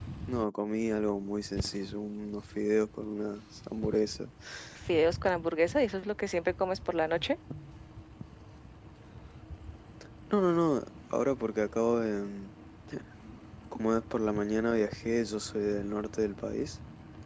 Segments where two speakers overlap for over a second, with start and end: none

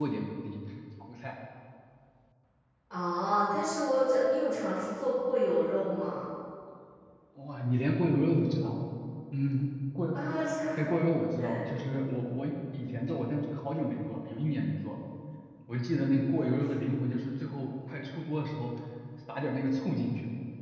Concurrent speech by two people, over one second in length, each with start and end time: none

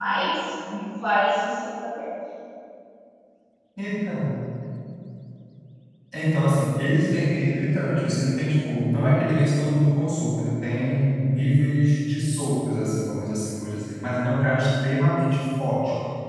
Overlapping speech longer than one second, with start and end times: none

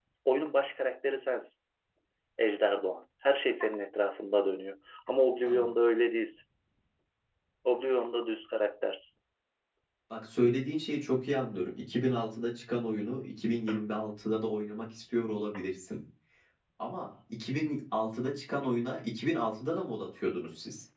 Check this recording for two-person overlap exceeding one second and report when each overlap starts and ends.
none

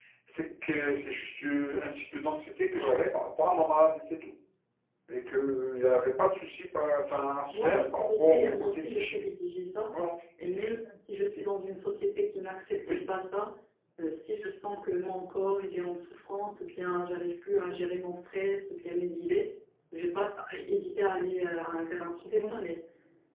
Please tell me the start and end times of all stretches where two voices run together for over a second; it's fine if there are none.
7.5-9.2

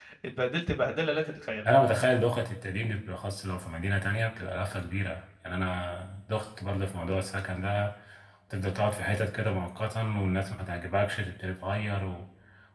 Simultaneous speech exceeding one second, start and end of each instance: none

